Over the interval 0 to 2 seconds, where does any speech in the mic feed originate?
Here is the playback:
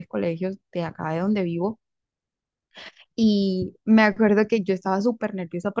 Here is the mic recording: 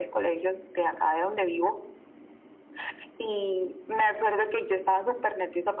echo only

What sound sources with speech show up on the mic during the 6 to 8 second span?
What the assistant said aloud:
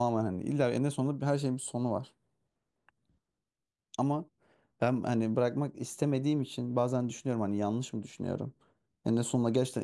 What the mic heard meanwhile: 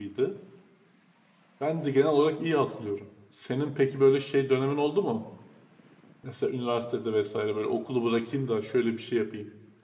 user only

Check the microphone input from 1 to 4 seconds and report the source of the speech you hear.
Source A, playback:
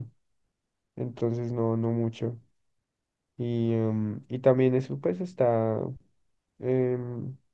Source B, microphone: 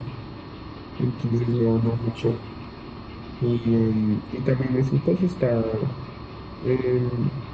echo only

